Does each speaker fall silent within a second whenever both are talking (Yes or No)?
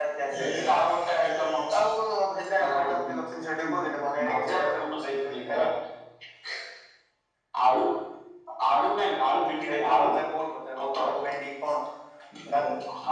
No